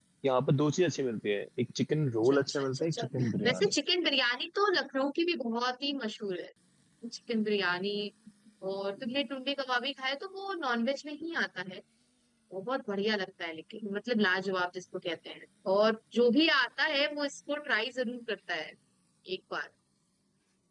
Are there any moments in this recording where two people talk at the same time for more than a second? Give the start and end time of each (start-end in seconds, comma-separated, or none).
2.2-3.7